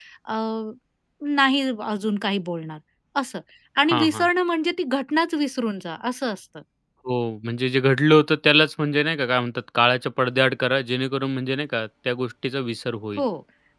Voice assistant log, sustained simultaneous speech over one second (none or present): none